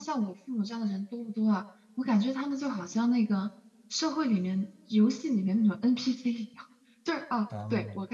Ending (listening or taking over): listening